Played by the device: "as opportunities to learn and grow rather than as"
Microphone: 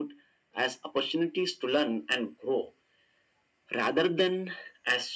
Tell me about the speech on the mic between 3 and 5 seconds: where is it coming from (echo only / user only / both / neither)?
echo only